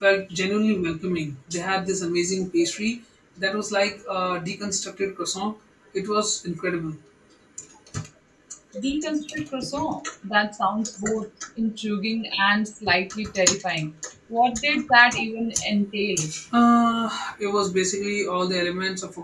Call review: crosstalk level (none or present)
none